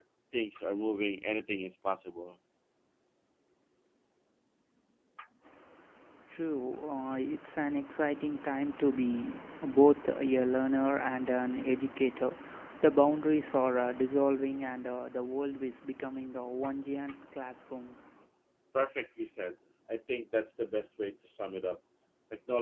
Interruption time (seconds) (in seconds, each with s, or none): none